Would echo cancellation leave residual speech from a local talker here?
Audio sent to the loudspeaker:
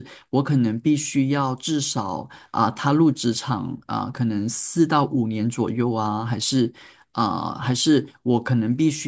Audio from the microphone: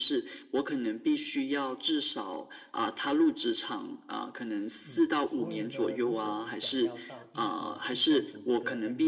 Yes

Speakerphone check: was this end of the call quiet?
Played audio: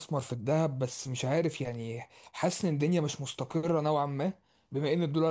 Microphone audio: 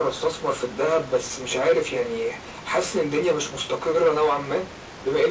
Yes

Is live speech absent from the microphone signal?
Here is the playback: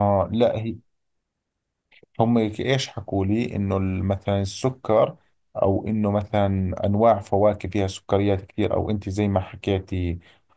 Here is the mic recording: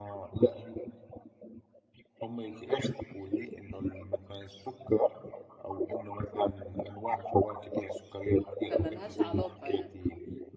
No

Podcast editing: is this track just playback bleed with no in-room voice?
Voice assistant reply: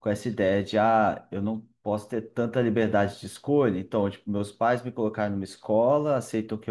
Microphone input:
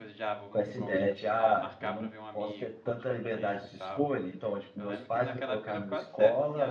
No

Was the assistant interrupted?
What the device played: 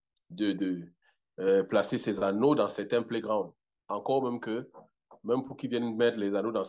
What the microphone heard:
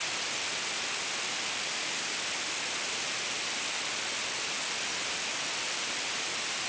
No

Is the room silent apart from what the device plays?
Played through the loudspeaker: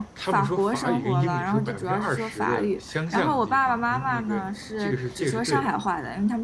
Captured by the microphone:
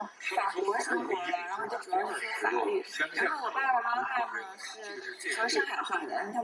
Yes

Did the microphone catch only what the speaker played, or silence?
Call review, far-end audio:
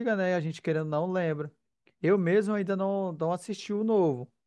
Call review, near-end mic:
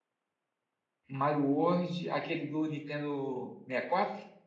No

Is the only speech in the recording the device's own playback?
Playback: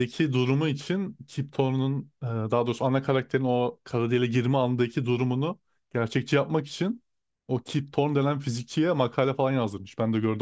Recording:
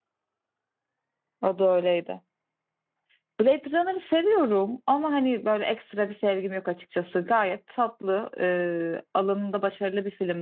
No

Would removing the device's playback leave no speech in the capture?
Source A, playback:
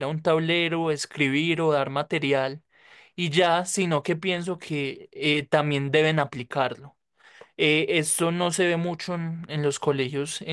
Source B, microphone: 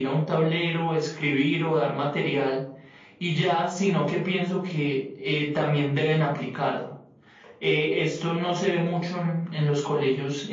Yes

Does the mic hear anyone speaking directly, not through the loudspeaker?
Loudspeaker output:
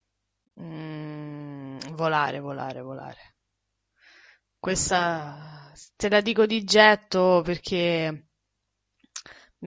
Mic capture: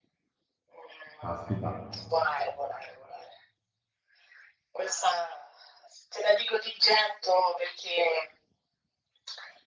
Yes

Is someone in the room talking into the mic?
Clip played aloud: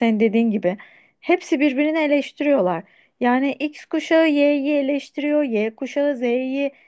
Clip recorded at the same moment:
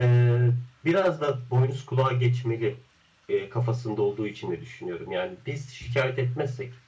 Yes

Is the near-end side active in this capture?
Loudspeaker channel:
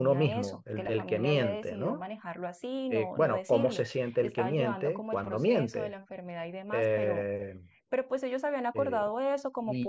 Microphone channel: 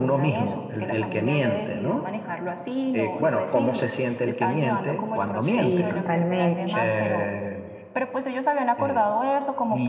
Yes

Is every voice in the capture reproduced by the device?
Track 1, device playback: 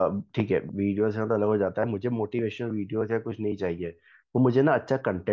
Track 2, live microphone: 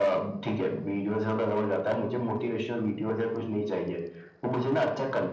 Yes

